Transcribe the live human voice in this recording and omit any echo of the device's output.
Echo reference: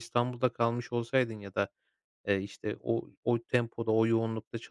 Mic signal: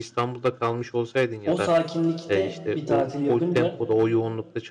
o sakinlikte bir tatil yapınca,

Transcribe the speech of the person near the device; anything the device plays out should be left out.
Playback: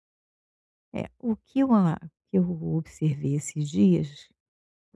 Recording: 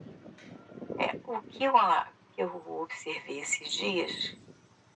none

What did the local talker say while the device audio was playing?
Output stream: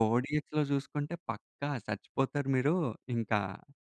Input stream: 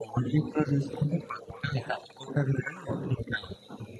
none

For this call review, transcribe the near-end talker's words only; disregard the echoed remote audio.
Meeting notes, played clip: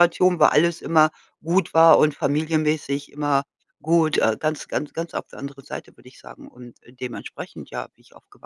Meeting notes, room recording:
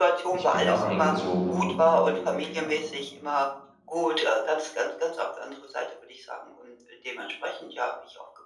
Ich bin ja auch hier hingezogen. Ja.

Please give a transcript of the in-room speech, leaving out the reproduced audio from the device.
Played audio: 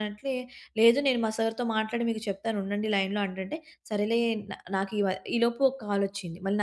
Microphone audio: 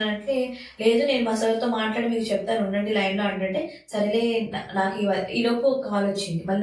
none

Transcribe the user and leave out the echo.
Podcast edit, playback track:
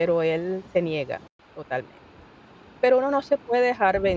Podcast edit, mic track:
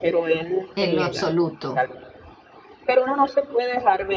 En lo absoluto,

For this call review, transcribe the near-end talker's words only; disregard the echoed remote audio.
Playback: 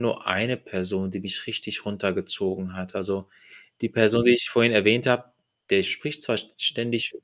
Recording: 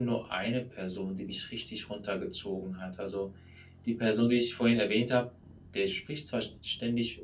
none

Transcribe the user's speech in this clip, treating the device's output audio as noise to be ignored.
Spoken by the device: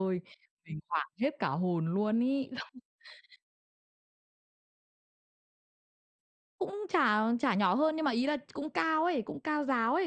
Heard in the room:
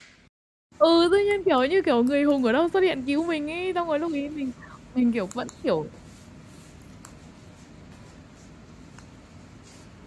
Ừ, tự nhiên kiểu như, kiểu, người hùng ở đâu xuất hiện cứu mình ấy, xong rồi lúc ấy mình mình, kiểu, vẫn, kiểu

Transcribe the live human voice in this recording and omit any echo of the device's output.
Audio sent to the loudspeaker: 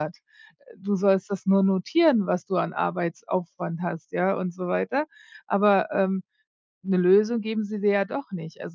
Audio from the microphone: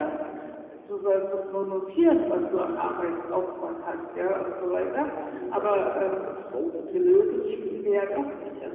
Mal abgesehen davon, dass meine Frau natürlich unzufrieden ist,

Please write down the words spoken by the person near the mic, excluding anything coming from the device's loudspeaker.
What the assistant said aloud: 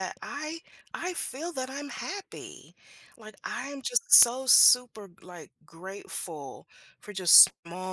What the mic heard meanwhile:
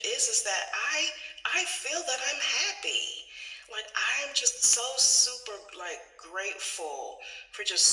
none

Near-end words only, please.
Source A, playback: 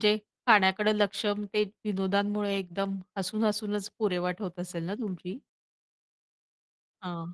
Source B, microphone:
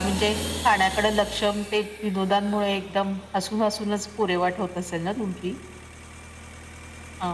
none

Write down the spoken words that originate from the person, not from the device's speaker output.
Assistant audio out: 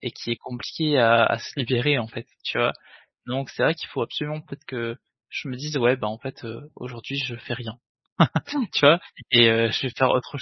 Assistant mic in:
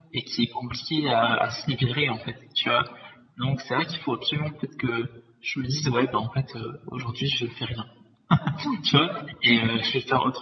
none

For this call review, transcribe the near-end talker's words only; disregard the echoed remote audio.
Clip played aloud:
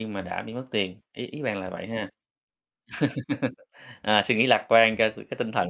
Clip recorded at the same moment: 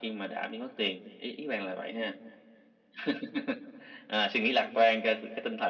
none

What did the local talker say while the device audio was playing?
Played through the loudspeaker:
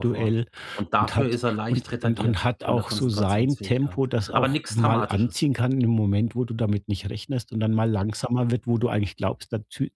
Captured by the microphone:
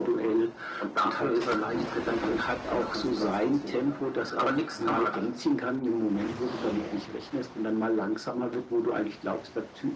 none

